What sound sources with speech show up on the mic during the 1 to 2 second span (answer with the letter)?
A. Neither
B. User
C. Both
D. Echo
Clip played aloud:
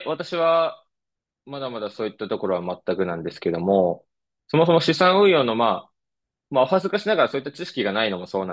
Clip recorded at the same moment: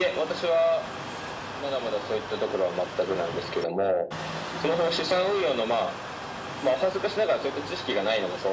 D